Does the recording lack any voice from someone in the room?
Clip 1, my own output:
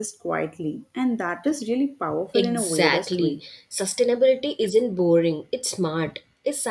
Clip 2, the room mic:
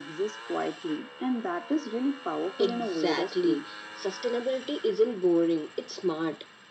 Yes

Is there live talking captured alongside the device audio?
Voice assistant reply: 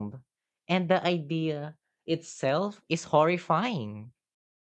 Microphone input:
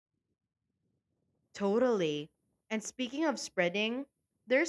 Yes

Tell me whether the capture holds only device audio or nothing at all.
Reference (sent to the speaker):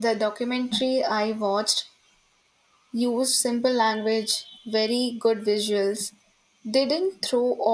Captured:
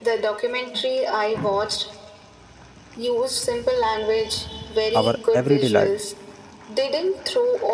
No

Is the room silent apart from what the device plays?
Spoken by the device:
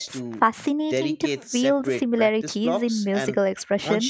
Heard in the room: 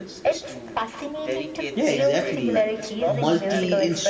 No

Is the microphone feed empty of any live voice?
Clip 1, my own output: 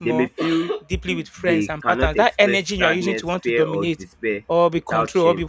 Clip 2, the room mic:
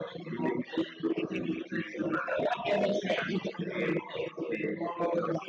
Yes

